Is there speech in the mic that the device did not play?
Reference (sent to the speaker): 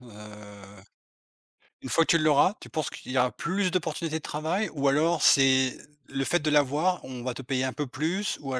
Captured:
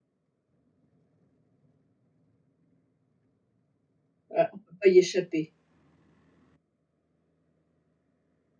Yes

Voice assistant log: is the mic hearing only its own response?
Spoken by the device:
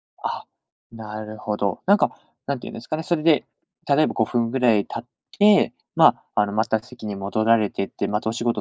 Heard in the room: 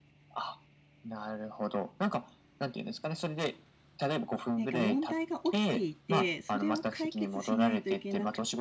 No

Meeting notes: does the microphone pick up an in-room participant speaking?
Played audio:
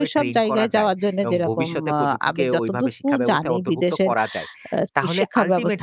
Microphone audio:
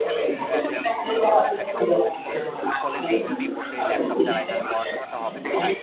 Yes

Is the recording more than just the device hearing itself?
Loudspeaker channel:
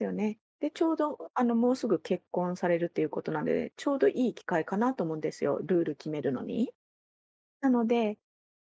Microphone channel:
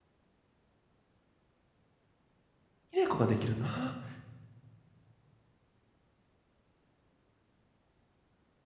Yes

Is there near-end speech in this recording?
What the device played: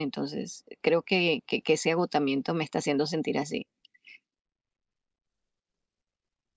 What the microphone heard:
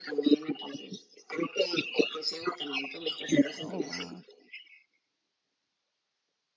Yes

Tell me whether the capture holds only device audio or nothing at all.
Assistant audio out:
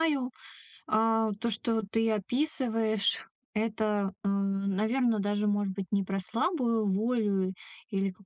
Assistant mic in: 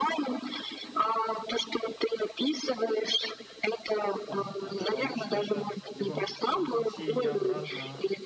No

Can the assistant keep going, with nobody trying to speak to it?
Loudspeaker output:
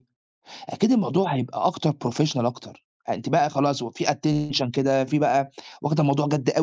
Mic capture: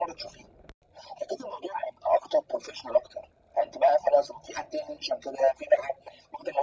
Yes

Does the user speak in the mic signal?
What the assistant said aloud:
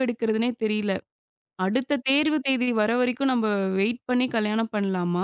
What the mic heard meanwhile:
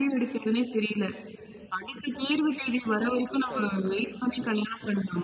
Yes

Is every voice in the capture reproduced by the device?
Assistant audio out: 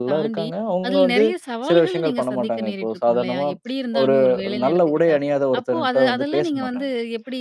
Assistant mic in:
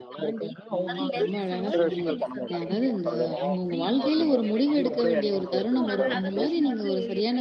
No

